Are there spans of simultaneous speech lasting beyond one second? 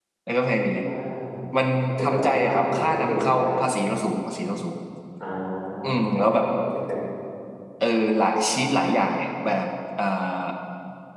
Yes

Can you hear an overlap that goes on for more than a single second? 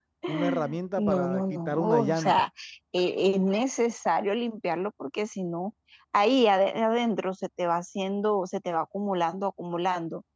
Yes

